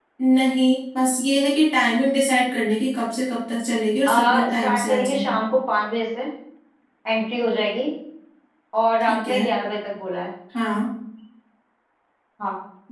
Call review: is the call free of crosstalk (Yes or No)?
No